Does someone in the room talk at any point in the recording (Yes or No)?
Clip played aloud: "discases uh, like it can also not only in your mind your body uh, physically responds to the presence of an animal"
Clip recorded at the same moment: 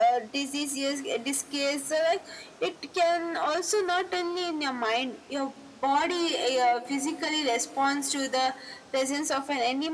No